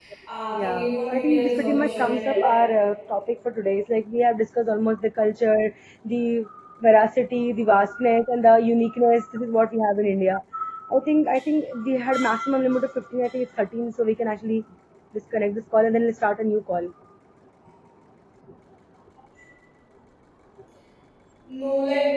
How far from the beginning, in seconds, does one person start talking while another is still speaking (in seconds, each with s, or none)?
0.5 s